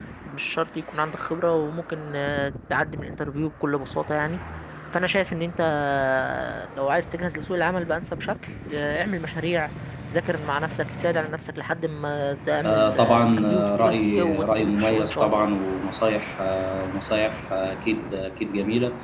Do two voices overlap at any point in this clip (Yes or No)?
Yes